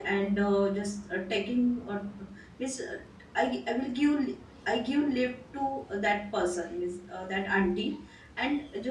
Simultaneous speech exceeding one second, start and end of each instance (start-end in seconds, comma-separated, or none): none